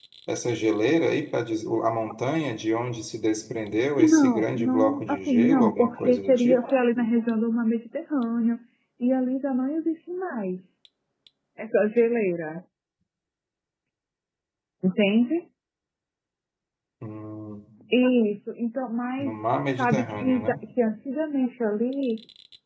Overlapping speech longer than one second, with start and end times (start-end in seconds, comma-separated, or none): 4.0-6.6, 19.2-20.6